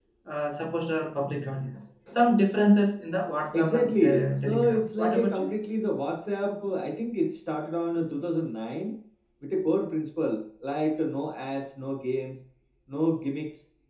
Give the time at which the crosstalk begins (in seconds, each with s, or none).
3.4 s